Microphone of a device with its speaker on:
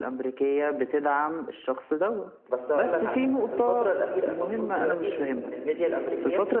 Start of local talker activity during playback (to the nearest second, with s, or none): 2 s